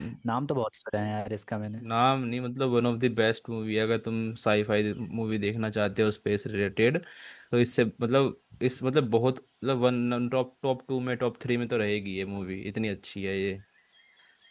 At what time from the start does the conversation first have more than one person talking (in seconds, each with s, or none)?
none